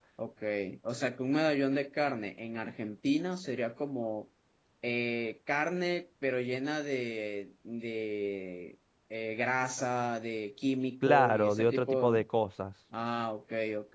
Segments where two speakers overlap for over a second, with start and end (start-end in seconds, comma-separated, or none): 11.0-12.2